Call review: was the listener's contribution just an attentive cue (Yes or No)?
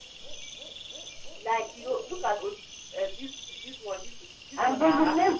No